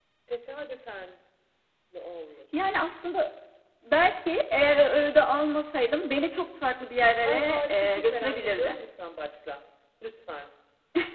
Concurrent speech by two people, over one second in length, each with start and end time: 7.2-8.8

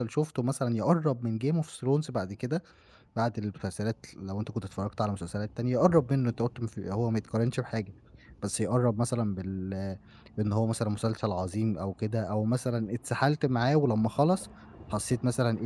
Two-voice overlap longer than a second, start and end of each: none

